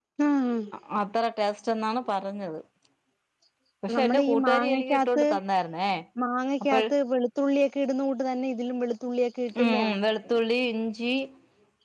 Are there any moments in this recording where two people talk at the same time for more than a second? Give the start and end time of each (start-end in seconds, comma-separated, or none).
4.0-5.2